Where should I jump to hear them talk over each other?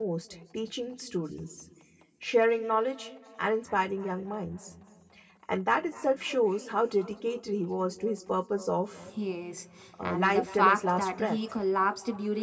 10.0 s

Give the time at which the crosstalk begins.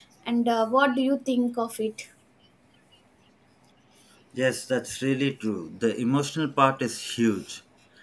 none

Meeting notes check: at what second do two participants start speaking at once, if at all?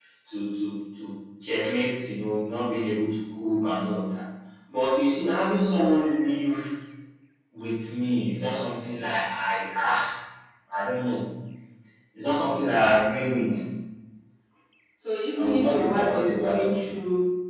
15.3 s

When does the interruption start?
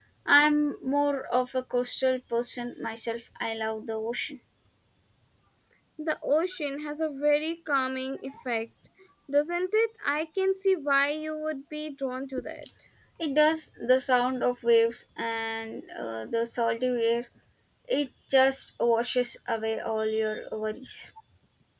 none

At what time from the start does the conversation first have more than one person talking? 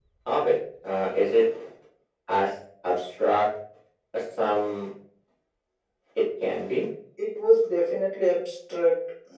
none

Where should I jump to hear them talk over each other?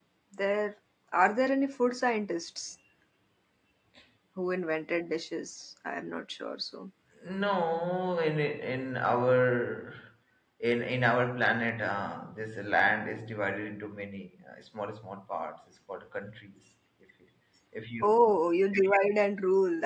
none

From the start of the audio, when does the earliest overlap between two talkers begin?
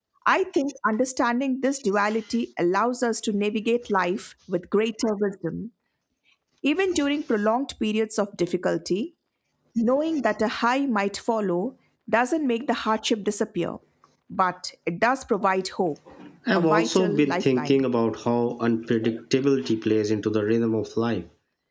16.5 s

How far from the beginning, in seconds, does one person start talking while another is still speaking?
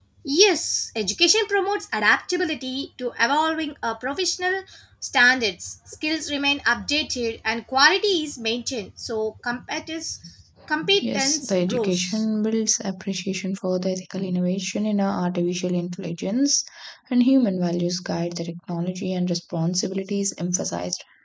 11.0 s

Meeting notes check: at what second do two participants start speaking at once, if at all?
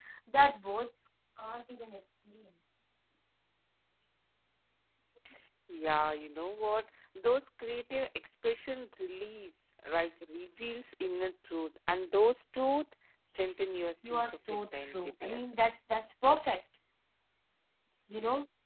14.0 s

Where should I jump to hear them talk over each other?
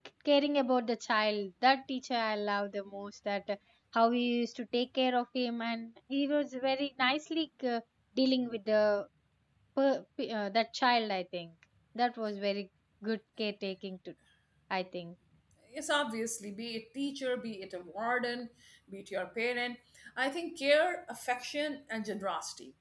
none

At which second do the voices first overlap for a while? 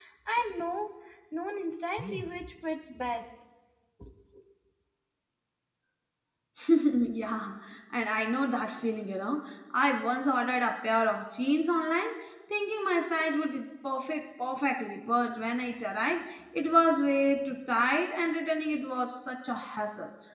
none

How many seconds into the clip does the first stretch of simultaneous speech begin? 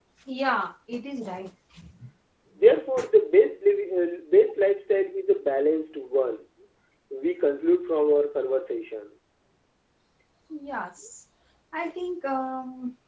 none

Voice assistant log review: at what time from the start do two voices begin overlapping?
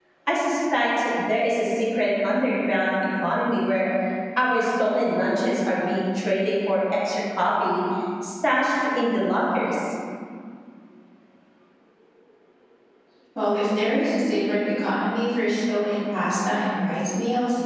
none

